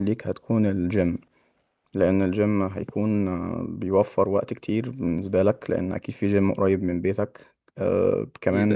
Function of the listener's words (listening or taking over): listening